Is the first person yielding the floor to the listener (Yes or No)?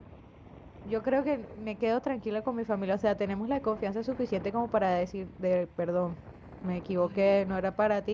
No